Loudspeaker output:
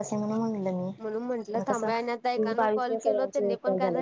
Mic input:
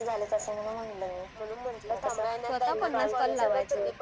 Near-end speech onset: 2.4 s

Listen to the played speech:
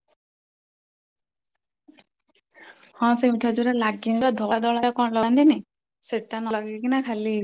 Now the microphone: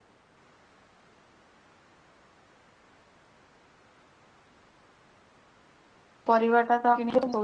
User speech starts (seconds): 6.3 s

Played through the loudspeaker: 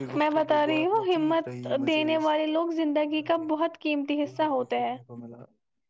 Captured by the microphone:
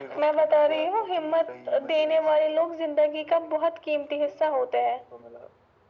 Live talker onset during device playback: none

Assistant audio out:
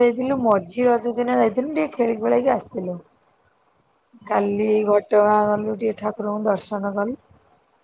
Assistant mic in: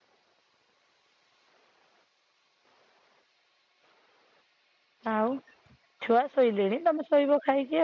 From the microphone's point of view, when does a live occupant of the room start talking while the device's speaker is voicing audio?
5.1 s

